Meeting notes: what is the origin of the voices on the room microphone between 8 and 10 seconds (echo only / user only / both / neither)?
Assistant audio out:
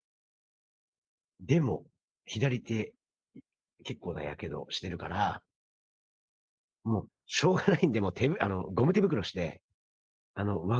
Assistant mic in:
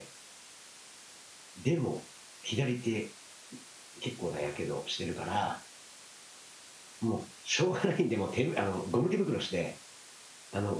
echo only